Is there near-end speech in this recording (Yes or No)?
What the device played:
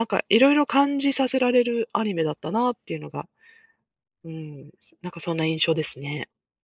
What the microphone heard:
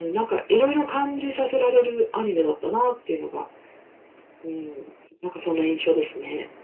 No